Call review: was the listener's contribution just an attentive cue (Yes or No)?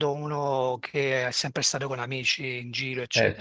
No